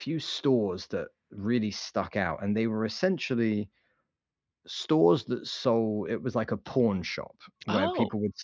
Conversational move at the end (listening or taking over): listening